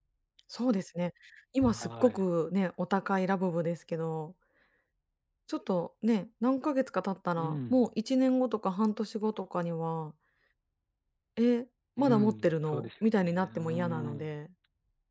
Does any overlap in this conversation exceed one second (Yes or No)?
Yes